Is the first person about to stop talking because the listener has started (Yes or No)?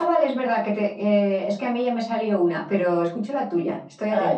Yes